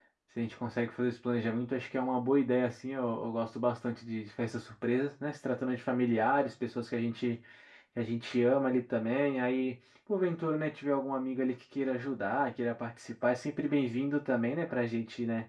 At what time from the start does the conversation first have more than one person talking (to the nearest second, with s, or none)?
none